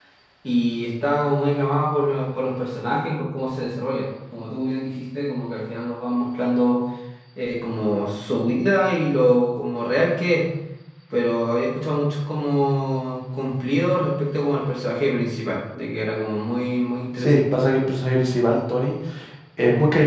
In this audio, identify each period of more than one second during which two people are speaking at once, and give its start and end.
none

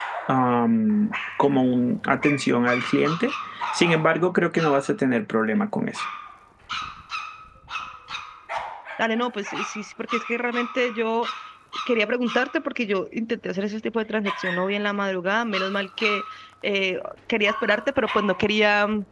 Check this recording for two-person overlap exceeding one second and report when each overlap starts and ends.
none

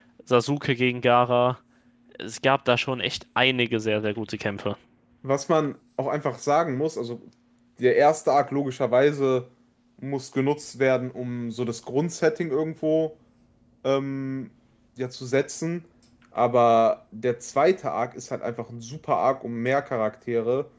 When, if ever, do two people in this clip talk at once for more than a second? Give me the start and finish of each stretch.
none

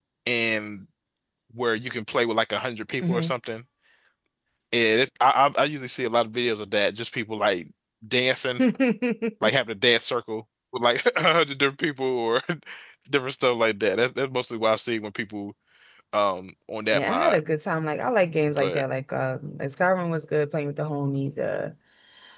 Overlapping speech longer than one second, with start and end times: none

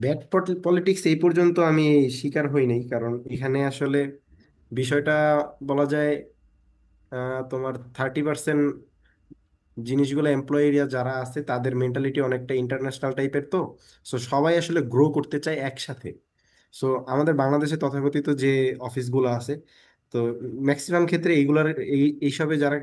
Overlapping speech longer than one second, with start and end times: none

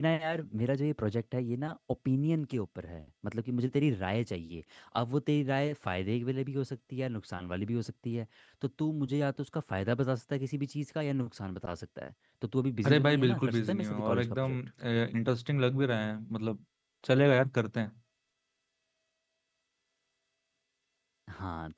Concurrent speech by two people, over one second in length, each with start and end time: 12.8-14.6

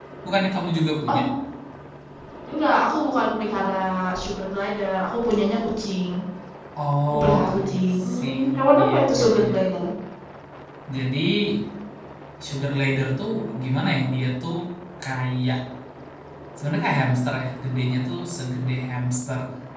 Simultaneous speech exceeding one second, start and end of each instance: 7.1-9.6

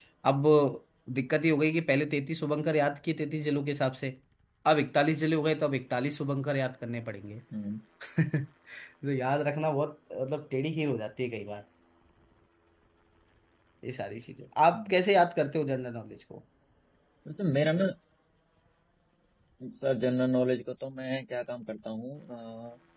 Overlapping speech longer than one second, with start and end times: none

